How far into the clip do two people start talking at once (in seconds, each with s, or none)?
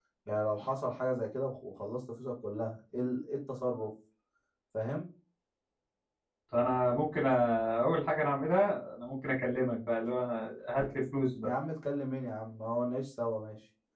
none